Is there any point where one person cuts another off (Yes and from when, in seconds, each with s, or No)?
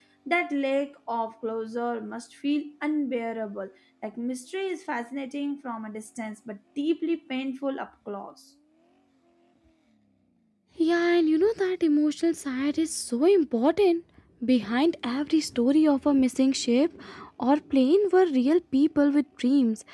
No